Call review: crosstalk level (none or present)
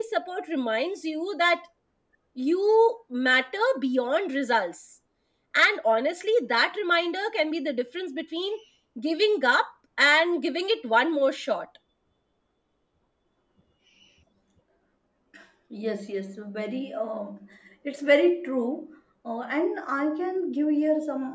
none